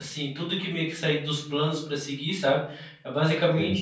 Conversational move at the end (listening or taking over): listening